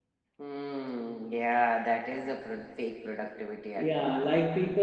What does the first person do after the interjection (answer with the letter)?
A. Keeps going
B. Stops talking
B